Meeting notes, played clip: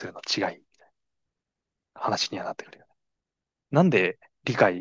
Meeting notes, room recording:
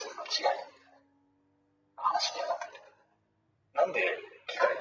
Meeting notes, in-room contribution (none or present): none